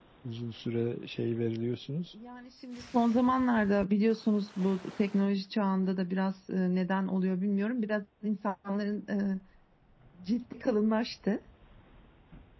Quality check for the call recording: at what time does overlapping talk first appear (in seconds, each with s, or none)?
none